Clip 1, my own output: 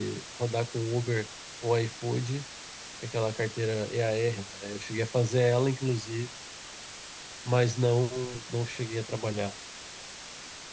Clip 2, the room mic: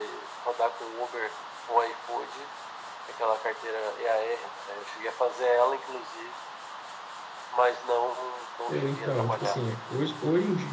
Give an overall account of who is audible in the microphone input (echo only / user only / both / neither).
both